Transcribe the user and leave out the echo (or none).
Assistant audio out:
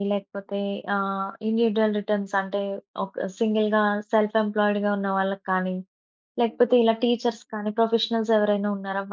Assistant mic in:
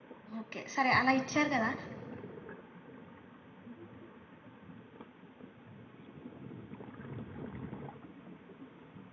ఓకే. సరే అలా ఇచ్చారు కదా!